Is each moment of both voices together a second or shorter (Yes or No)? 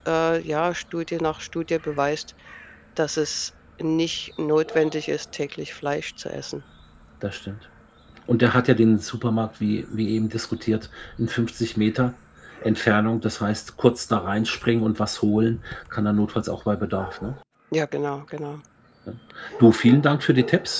Yes